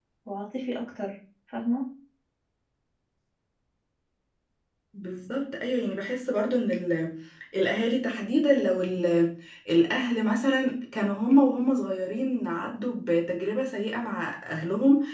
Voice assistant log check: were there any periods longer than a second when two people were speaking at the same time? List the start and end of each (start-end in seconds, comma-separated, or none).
none